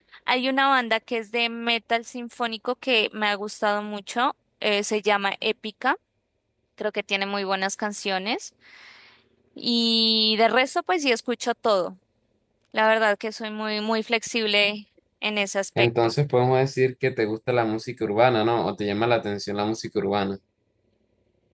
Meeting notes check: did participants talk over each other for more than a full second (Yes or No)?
No